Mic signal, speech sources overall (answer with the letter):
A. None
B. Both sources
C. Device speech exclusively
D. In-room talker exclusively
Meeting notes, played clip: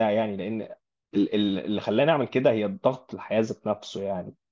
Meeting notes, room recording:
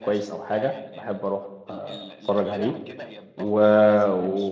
B